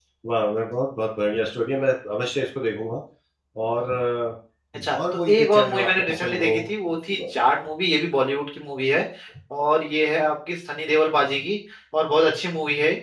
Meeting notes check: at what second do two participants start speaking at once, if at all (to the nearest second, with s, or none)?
5 s